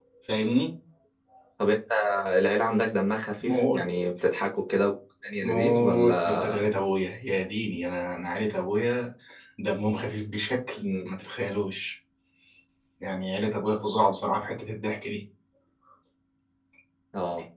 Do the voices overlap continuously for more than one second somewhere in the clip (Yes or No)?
Yes